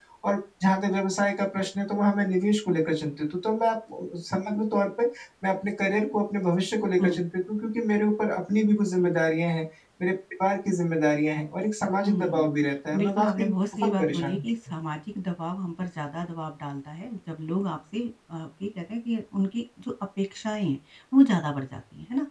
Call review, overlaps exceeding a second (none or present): present